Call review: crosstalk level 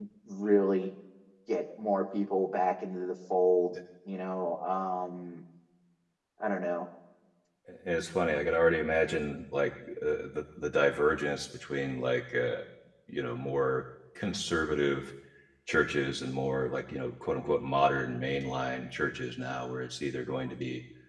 none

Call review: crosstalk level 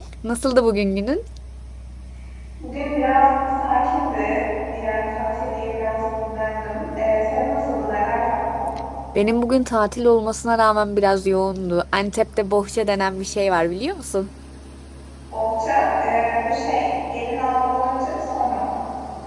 none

